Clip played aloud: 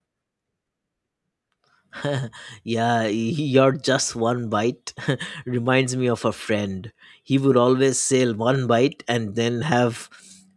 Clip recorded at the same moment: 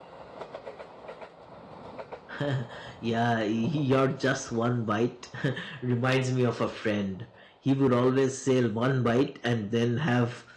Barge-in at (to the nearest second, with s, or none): none